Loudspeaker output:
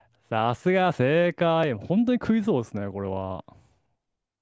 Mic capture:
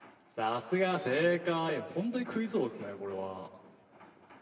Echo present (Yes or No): Yes